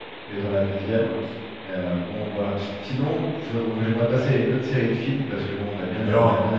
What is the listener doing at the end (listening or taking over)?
listening